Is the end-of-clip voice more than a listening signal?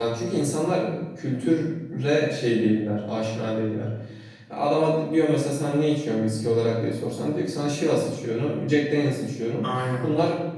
No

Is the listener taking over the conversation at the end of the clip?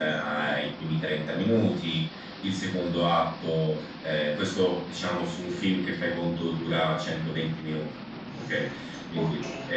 Yes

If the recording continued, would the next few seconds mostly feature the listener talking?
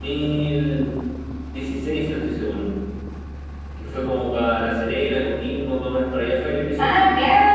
Yes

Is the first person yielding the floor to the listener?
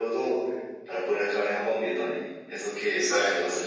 No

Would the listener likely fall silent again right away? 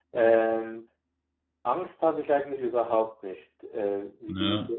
Yes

